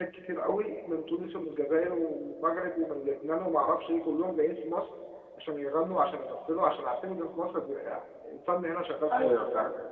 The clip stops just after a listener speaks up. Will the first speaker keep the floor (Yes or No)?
No